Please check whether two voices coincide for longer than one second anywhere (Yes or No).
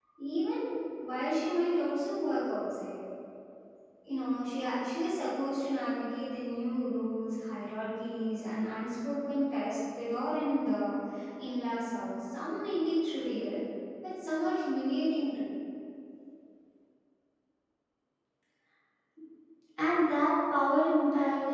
No